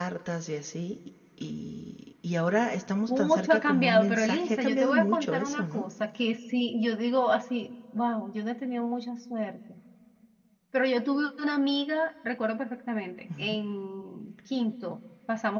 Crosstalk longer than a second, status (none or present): present